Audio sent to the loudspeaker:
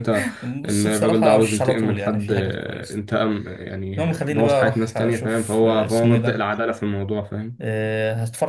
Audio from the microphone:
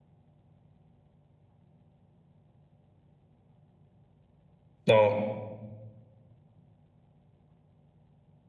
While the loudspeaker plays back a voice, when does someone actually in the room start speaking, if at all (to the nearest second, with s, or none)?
5 s